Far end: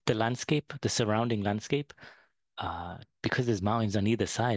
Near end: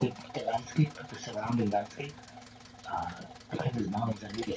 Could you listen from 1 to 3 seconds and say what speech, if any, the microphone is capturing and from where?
echo only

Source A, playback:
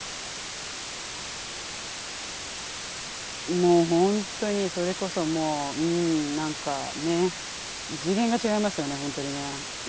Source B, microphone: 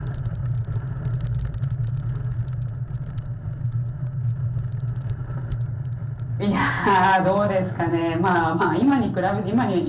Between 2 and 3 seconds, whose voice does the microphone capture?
neither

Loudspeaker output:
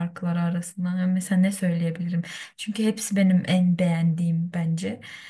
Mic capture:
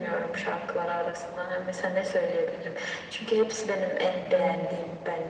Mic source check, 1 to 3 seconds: echo only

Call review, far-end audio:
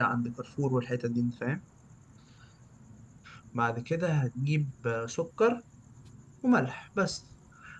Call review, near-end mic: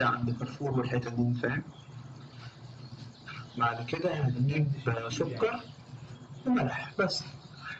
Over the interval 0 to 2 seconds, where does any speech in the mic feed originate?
echo only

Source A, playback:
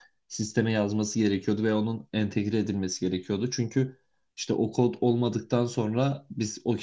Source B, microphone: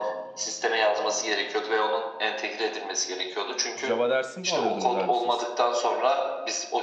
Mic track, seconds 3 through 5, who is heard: both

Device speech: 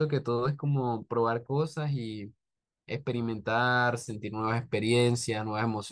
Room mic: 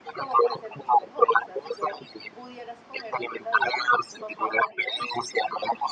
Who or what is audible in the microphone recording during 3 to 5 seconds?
both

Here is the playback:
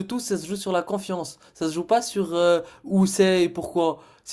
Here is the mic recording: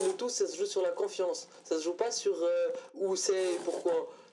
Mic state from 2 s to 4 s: echo only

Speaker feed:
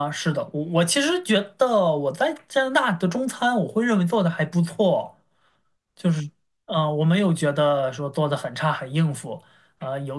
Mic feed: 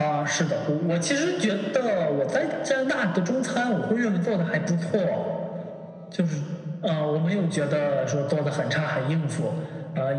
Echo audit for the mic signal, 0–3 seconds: echo only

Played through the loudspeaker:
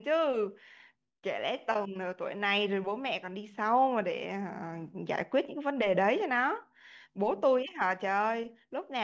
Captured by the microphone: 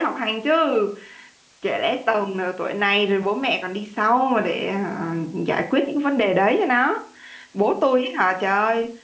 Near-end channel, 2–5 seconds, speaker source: echo only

